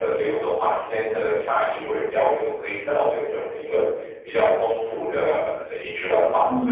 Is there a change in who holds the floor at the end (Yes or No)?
Yes